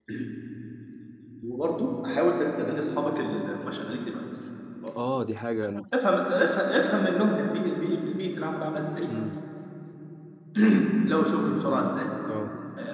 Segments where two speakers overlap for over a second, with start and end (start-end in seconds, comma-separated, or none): none